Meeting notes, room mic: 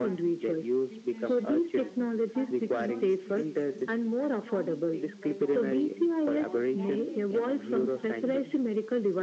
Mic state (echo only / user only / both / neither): both